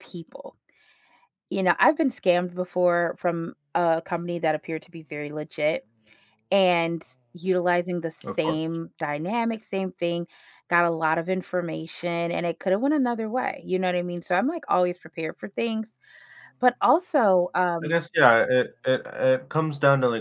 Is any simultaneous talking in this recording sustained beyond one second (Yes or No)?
No